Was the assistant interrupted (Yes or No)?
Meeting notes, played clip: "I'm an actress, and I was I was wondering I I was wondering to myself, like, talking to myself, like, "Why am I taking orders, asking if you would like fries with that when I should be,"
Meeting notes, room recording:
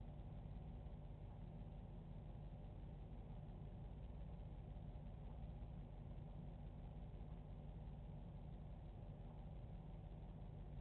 No